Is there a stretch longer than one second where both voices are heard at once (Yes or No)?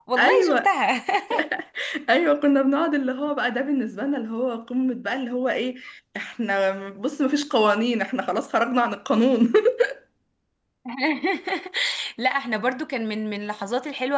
No